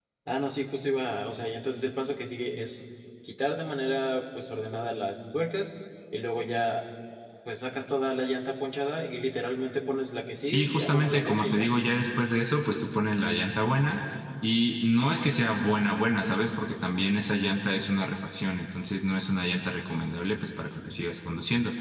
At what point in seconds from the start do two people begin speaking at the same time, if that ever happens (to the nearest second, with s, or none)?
10 s